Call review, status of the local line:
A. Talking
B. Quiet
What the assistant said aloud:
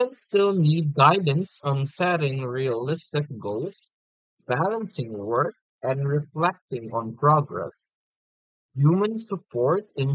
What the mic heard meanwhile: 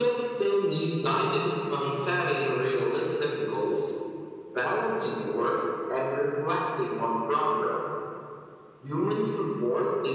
B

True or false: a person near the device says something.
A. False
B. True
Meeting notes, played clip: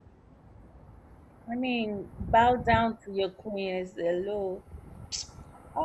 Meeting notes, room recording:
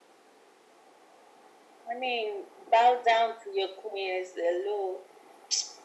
A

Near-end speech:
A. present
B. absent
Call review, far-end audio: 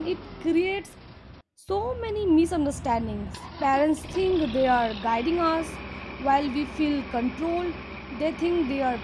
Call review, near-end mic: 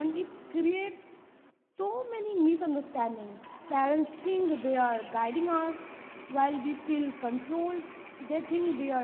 B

